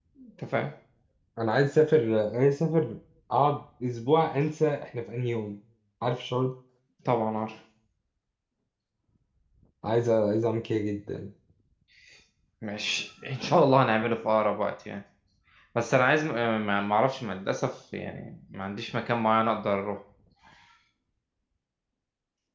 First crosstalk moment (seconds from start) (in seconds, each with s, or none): none